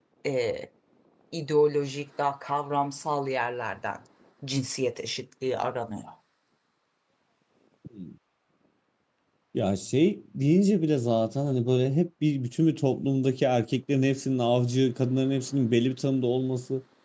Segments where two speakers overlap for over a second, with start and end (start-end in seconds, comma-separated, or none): none